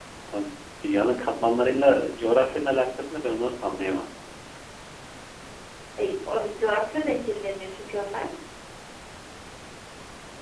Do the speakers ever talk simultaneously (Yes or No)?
No